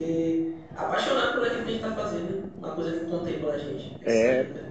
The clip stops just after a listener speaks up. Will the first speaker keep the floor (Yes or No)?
No